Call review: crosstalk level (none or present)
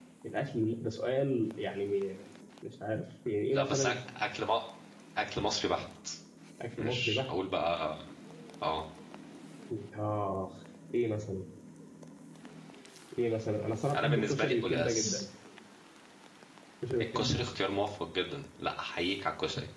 present